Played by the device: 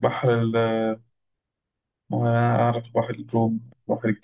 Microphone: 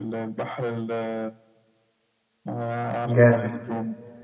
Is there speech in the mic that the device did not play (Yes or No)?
Yes